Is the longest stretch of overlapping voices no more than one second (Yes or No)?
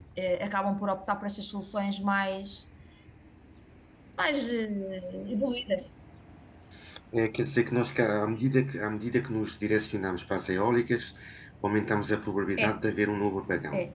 Yes